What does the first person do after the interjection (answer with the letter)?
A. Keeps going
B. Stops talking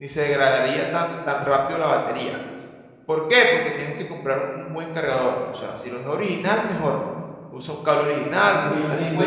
B